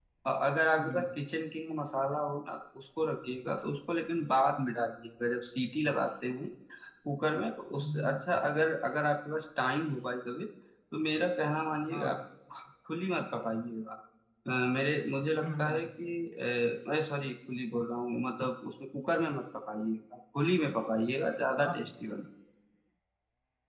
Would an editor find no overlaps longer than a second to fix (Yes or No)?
Yes